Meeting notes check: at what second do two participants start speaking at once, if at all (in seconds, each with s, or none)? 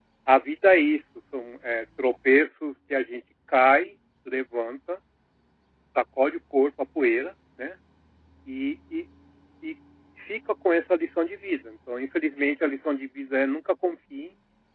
none